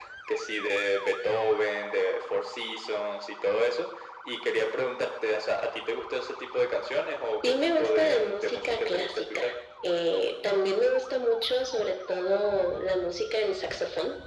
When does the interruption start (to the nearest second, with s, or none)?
7 s